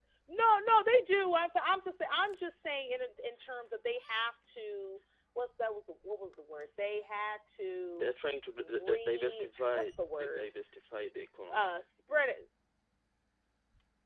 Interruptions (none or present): present